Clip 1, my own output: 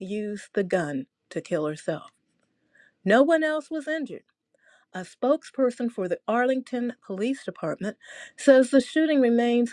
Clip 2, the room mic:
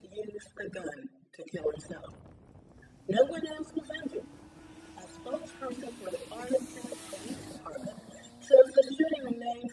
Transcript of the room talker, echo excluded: none

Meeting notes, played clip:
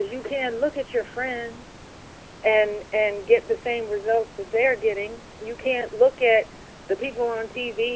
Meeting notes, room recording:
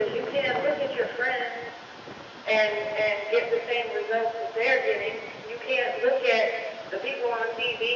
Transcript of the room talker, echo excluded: none

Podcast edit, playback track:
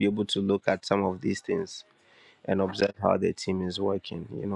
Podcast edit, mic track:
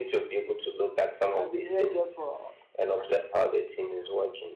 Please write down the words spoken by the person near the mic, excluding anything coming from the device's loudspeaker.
I've been here just for

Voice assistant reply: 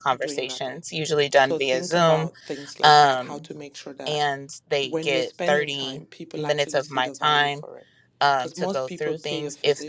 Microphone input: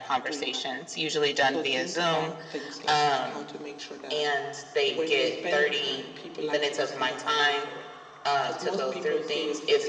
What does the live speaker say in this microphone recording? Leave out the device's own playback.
none

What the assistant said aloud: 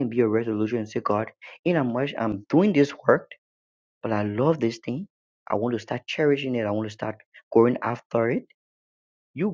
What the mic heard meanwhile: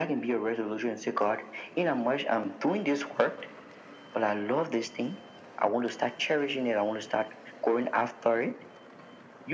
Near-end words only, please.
none

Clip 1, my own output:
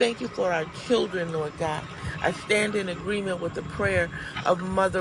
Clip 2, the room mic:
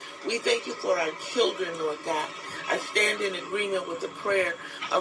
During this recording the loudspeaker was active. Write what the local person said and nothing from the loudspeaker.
none

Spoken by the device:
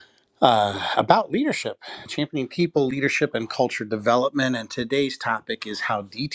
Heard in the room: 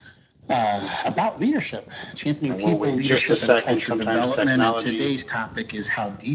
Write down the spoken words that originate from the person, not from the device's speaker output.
And we'll wait just a second. Sometimes technology.

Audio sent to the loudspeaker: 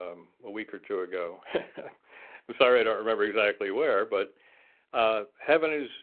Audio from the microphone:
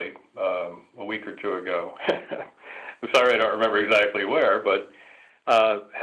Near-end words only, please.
none

